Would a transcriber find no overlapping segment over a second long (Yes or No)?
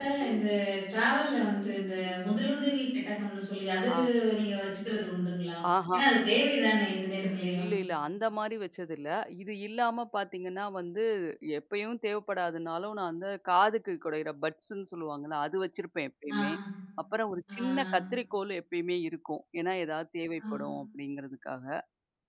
Yes